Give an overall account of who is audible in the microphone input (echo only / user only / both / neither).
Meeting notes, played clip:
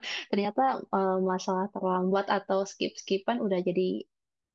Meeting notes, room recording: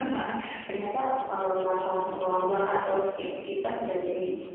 both